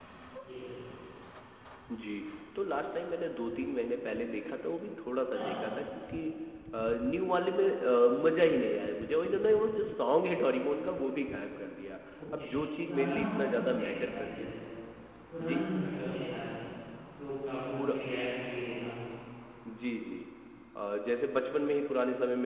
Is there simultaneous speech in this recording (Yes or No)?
Yes